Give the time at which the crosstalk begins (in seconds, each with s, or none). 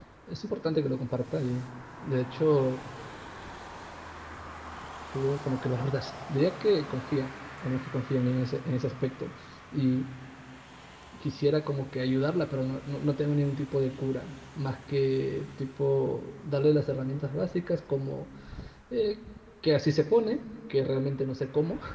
none